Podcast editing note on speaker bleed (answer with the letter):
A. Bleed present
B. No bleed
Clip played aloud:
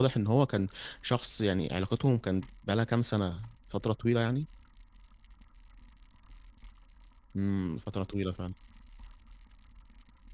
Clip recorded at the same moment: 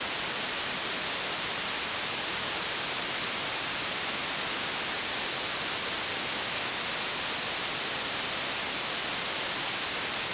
B